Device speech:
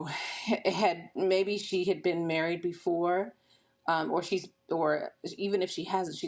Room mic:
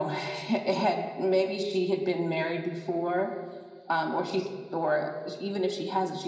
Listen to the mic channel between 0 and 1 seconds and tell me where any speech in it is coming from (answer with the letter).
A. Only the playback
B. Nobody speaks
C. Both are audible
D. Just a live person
A